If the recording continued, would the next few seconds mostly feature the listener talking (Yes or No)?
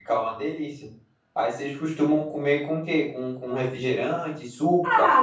Yes